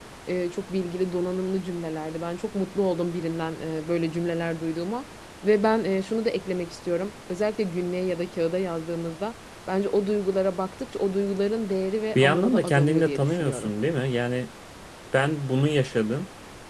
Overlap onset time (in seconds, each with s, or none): 12.1 s